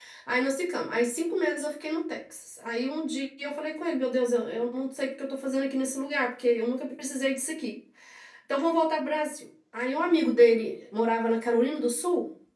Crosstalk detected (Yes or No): No